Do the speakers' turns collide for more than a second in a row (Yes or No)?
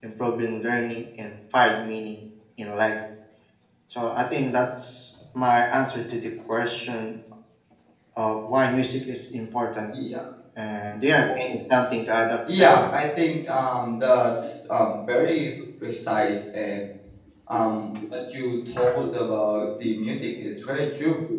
No